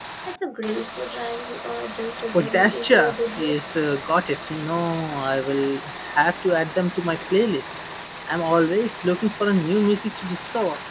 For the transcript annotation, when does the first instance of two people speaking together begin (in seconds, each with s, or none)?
2.3 s